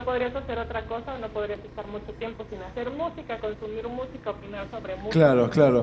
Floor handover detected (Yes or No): Yes